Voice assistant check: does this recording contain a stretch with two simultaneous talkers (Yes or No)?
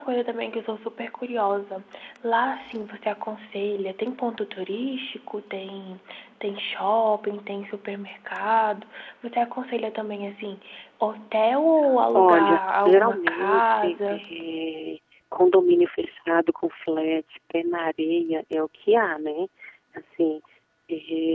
Yes